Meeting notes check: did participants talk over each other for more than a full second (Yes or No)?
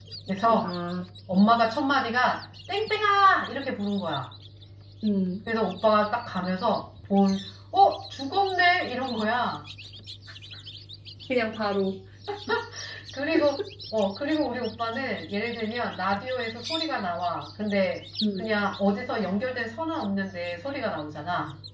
No